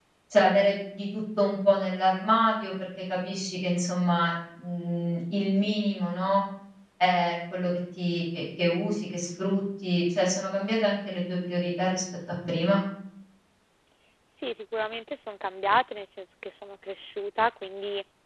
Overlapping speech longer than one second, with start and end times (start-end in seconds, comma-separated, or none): none